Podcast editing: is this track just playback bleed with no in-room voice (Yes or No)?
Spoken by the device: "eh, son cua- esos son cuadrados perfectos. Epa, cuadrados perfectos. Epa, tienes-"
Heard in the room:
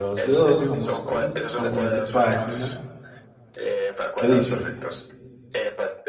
No